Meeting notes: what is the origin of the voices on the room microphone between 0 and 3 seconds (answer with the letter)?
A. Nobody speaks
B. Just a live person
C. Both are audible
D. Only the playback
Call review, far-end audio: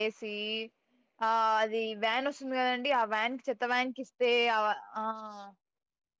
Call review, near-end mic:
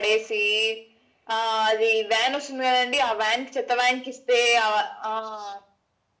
D